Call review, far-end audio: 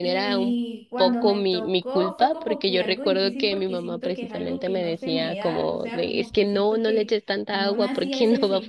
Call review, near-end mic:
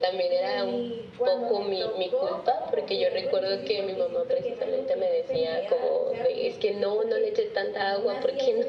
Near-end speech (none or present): none